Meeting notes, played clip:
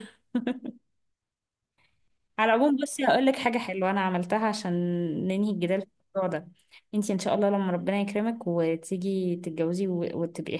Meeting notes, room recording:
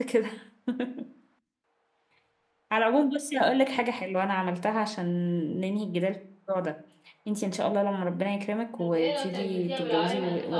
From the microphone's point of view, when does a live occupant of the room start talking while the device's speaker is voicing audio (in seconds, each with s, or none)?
8.8 s